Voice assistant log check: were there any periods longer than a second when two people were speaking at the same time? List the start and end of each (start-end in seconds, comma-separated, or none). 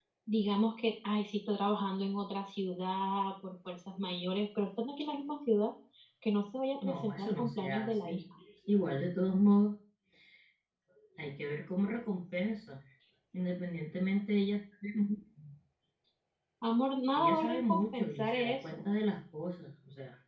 6.8-8.2, 17.2-18.9